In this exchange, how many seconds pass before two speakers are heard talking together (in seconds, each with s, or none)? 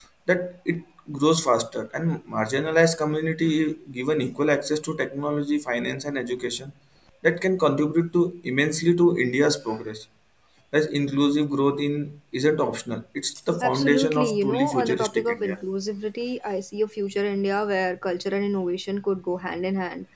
13.6 s